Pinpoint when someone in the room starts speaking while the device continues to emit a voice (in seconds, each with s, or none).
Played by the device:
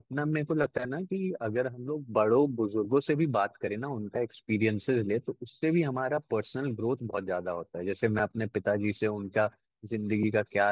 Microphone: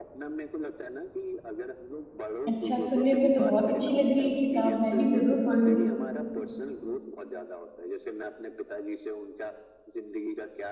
2.5 s